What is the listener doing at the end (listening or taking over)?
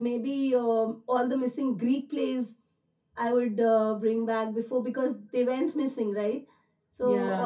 listening